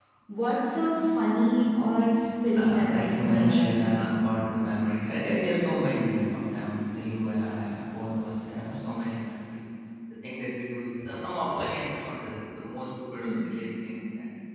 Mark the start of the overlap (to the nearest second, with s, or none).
3 s